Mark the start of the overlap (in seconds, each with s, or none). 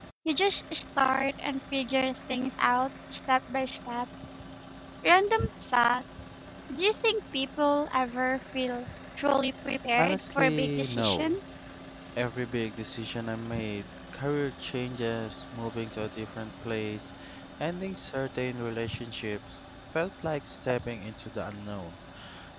10.0 s